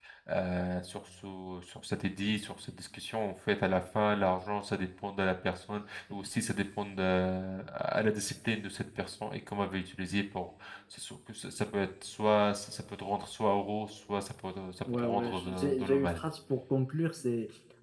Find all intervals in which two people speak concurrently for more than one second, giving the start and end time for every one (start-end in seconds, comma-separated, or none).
14.9-16.2